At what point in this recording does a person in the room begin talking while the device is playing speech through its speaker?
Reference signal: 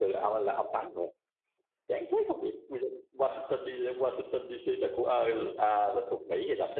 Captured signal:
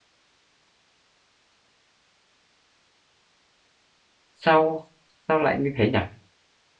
4.3 s

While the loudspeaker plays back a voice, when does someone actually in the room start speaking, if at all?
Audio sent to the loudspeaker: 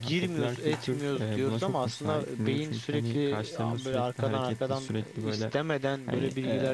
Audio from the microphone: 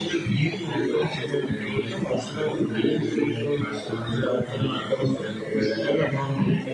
none

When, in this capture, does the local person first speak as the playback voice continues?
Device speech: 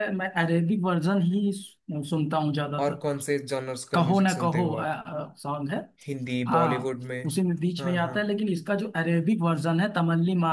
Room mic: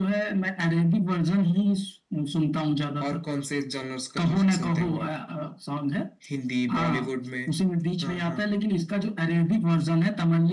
none

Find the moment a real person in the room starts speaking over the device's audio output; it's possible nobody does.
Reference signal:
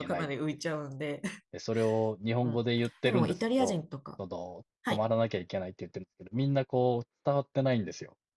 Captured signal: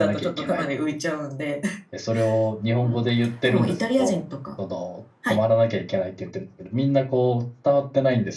none

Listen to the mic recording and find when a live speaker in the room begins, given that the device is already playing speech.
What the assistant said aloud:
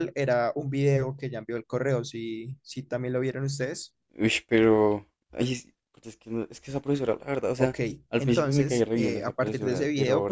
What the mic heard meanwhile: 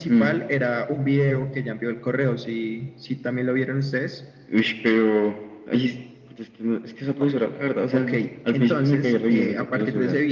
7.2 s

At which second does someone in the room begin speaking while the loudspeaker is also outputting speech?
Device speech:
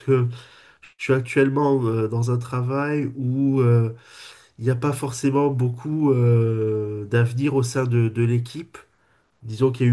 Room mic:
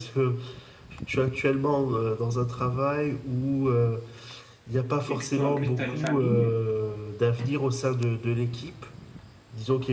5.1 s

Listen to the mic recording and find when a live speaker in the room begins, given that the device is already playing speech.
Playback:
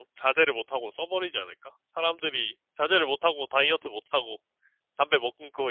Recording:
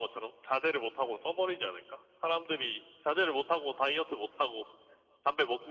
none

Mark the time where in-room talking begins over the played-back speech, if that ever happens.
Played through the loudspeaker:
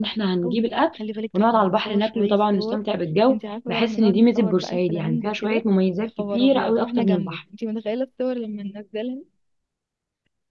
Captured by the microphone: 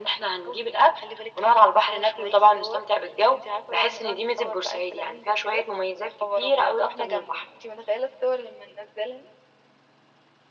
none

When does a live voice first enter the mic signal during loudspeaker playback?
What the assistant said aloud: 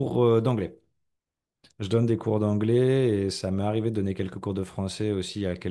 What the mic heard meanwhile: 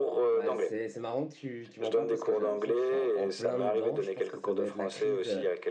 0.3 s

